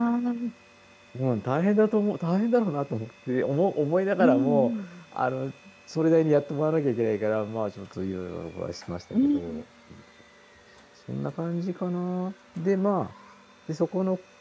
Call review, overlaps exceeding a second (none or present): none